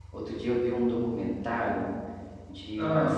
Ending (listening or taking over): listening